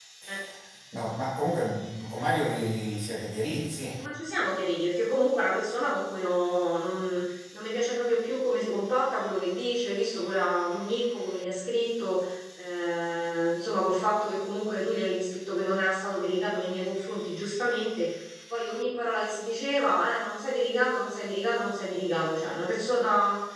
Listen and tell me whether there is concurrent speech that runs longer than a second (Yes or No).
No